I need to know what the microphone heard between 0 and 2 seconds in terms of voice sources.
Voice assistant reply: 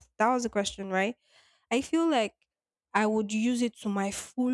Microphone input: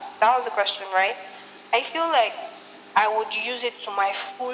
echo only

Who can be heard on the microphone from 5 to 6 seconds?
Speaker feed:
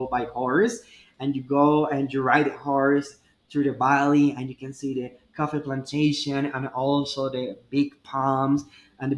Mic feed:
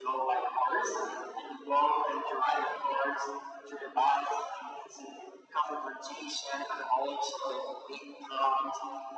echo only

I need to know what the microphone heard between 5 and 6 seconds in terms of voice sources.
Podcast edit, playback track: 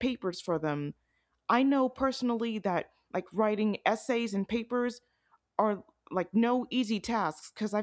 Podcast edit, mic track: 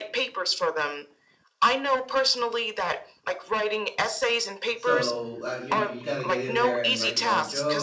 both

